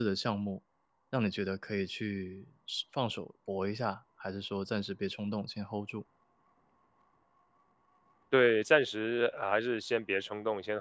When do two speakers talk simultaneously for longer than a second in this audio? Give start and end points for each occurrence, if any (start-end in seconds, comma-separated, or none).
none